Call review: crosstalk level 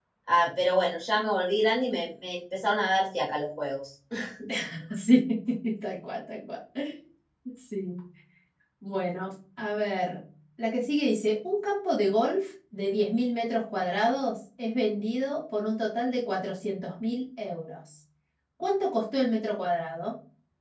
none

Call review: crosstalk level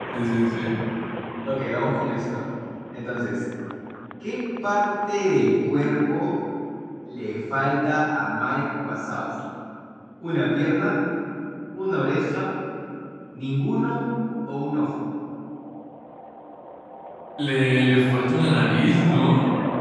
none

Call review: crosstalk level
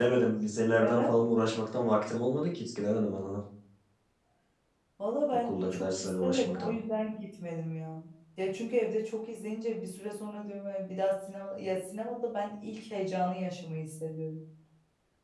present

